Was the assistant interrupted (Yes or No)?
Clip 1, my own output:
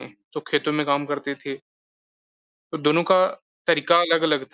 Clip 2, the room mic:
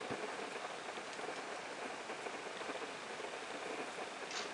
No